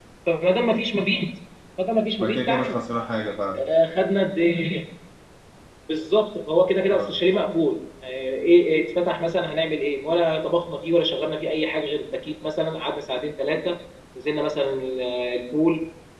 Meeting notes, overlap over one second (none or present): none